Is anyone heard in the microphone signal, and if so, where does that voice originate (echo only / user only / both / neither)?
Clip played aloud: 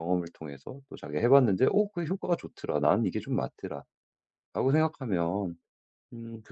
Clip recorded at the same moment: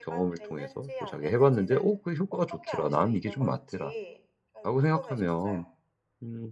both